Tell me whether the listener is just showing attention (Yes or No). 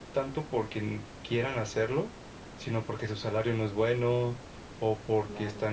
Yes